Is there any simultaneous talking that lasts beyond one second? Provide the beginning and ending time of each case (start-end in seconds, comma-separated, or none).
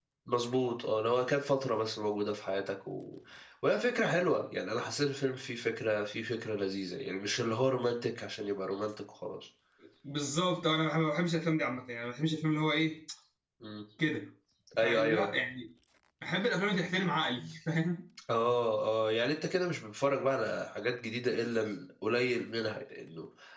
none